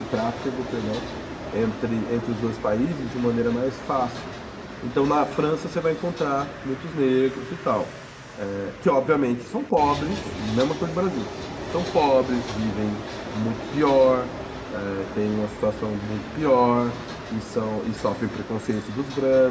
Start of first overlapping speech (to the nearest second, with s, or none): none